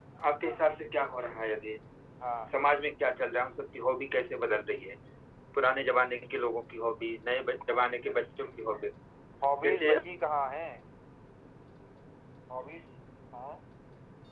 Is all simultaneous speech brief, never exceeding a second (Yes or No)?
Yes